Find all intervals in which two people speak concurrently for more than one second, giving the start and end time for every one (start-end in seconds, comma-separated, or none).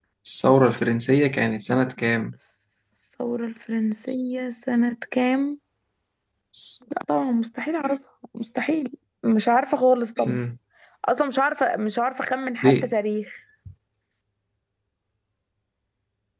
none